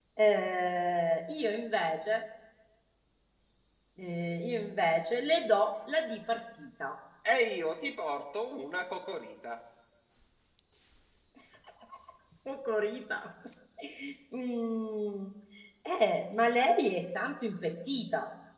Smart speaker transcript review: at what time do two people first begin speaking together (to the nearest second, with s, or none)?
none